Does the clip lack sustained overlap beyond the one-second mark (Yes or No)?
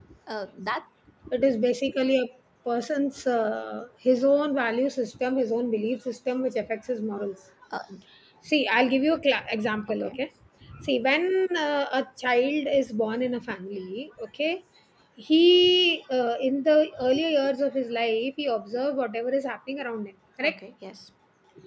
Yes